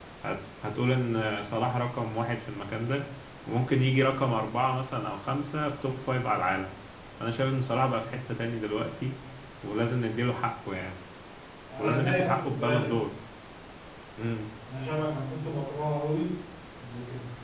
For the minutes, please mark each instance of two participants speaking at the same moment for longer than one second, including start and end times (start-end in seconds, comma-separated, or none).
11.8-13.1